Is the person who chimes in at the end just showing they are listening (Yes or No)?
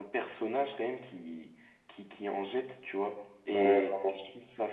Yes